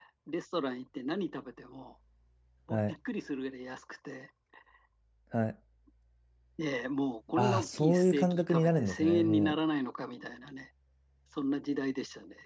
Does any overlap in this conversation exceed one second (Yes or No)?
Yes